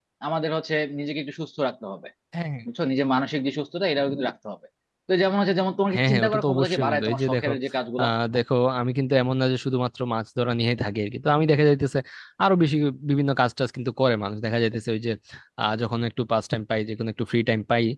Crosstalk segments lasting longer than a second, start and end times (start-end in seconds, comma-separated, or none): 5.9-7.5